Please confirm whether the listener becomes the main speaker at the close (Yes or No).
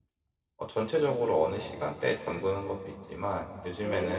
No